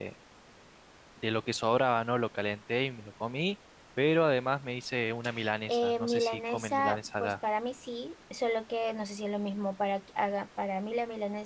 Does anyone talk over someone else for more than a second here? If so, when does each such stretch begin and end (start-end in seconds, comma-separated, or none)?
5.7-7.3